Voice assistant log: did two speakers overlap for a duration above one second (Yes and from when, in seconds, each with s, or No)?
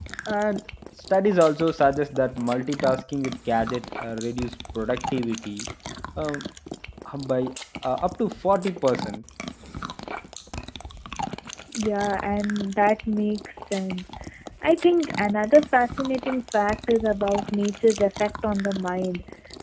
No